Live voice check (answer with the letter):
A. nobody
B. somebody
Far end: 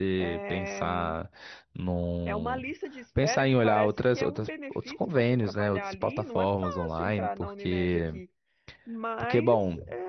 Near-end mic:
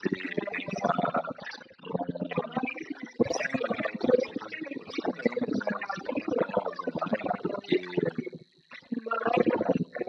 A